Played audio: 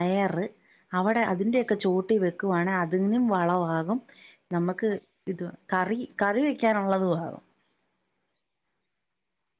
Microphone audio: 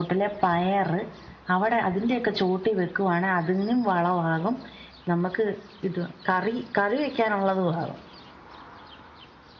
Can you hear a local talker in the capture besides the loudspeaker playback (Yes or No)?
No